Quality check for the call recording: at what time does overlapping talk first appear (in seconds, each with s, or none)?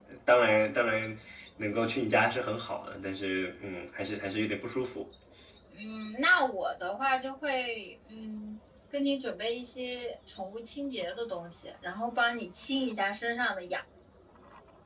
none